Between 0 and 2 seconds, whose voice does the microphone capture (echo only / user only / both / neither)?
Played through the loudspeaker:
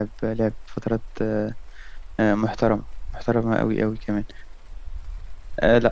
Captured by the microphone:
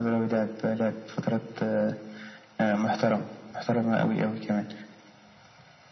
echo only